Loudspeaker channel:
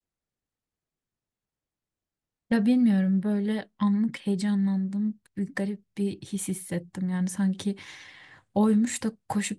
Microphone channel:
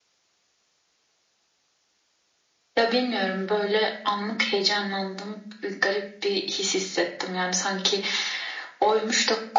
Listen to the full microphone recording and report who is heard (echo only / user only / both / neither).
echo only